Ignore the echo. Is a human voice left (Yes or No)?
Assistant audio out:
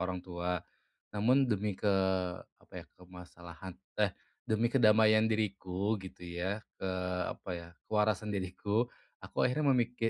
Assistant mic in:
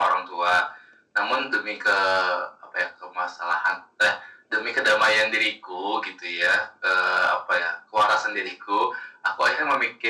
No